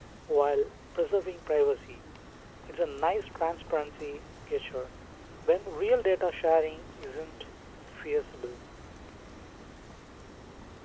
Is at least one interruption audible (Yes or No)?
No